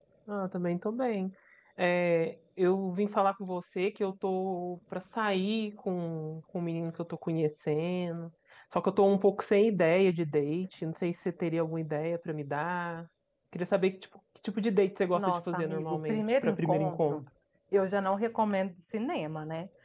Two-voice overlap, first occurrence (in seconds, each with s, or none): 15.1 s